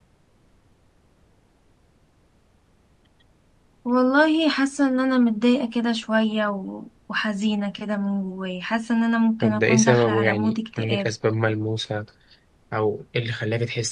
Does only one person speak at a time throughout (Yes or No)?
No